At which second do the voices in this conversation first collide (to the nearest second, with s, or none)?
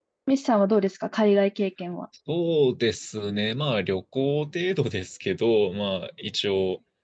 none